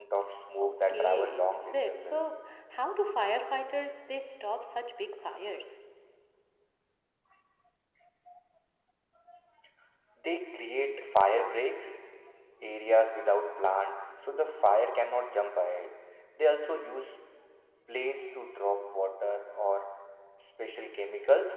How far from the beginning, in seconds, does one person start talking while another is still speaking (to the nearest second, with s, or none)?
1 s